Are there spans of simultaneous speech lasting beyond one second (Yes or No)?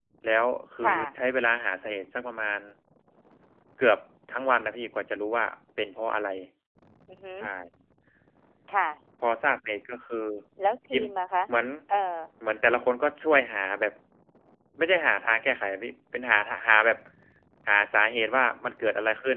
No